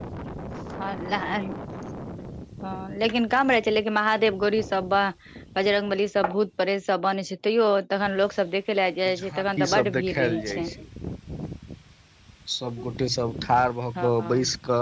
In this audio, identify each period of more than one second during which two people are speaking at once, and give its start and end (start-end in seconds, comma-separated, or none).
9.2-10.7